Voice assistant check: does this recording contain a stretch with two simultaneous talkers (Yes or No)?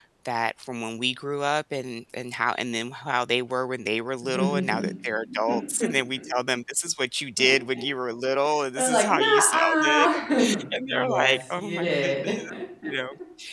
Yes